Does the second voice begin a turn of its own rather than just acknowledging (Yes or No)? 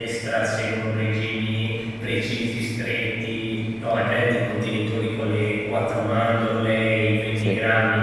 No